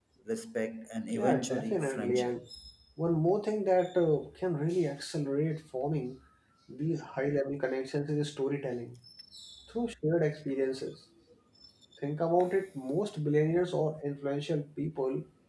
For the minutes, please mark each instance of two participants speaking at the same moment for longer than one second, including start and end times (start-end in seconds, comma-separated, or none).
1.1-2.3